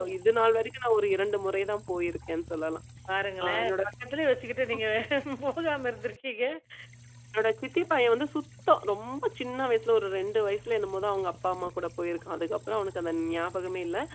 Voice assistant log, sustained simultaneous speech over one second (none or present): none